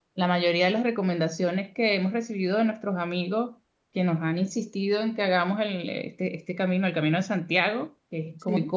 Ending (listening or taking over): listening